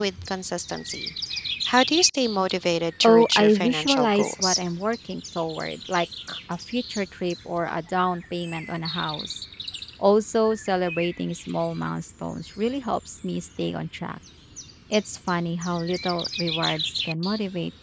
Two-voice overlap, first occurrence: 3.0 s

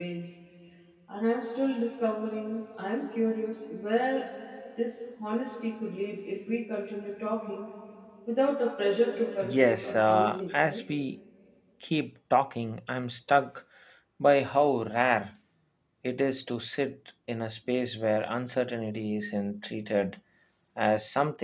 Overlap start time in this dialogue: 9.4 s

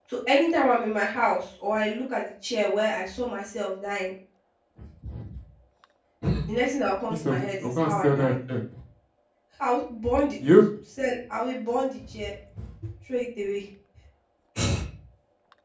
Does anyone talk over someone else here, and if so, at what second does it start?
7.1 s

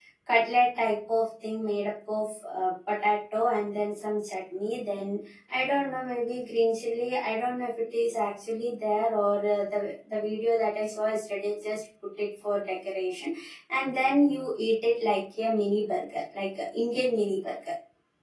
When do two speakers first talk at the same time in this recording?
none

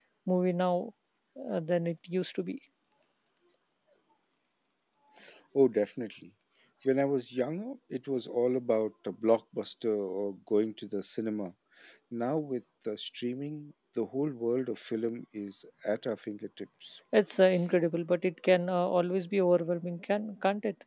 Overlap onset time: none

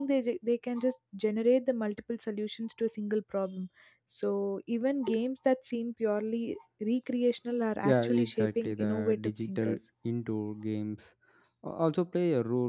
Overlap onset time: 7.8 s

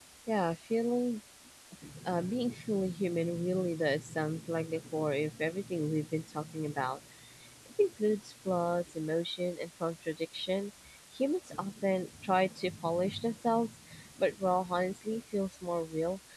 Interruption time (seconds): none

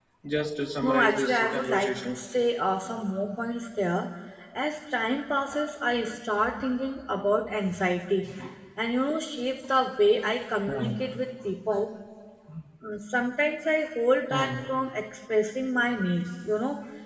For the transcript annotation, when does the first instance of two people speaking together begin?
0.8 s

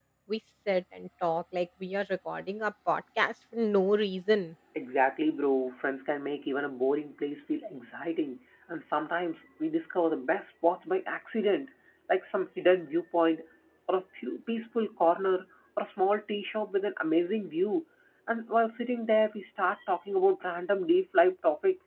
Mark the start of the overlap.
none

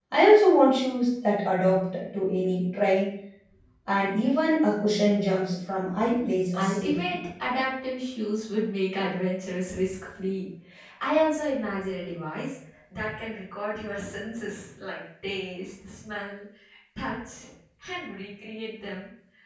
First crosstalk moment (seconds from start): 6.0 s

